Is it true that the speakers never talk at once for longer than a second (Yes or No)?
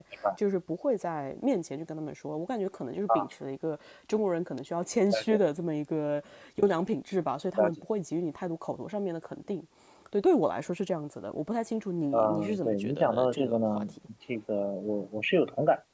No